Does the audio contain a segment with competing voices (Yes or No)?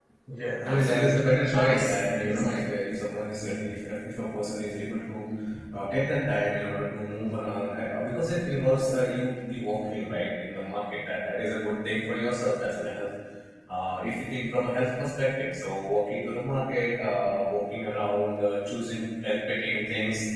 Yes